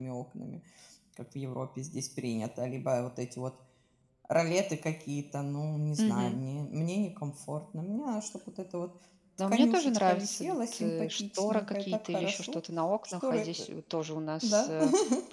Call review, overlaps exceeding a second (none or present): present